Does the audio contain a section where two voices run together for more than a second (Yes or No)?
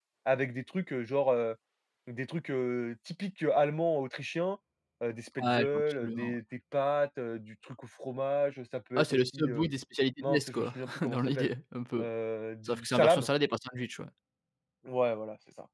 Yes